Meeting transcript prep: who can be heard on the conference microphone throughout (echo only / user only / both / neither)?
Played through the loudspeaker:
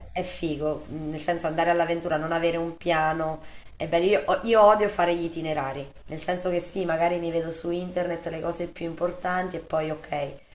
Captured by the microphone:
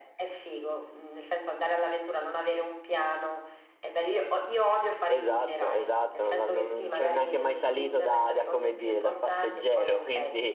both